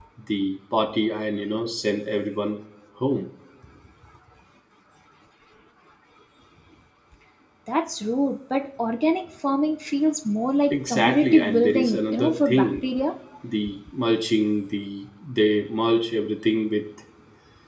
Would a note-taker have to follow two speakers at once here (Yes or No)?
Yes